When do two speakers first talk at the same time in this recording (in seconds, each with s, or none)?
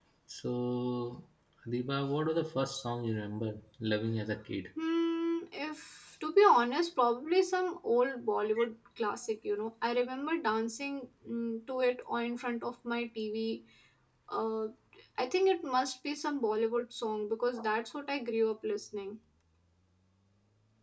none